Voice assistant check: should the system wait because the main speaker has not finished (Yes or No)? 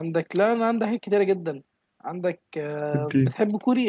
Yes